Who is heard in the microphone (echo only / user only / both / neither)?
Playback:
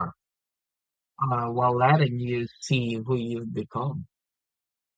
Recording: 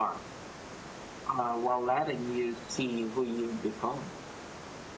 echo only